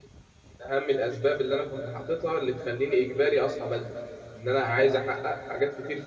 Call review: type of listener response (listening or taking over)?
listening